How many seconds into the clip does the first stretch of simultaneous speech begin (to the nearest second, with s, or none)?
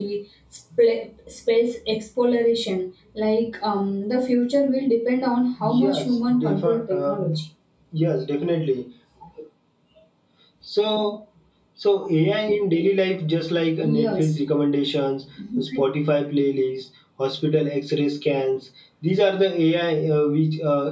6 s